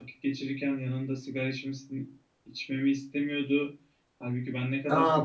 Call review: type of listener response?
taking over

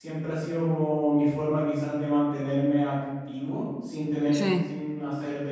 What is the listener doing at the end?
listening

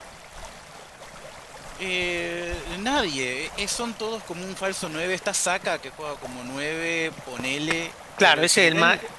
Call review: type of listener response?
taking over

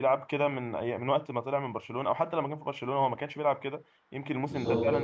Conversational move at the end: listening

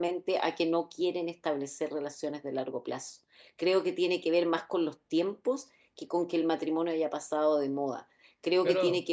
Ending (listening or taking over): listening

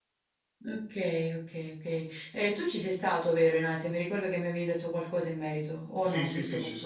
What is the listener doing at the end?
taking over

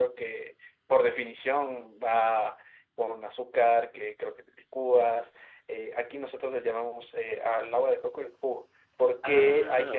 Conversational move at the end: listening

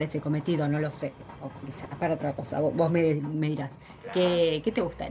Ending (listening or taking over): listening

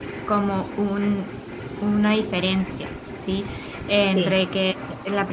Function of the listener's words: listening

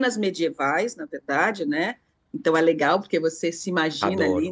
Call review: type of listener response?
listening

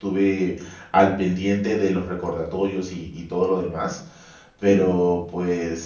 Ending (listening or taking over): listening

